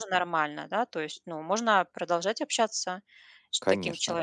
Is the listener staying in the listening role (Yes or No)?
No